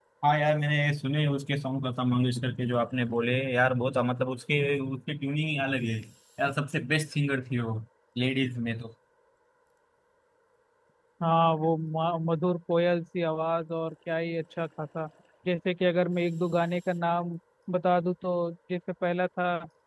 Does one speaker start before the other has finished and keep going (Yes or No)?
No